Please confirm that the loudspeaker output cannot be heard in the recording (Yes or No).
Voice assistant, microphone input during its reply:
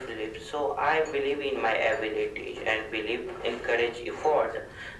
No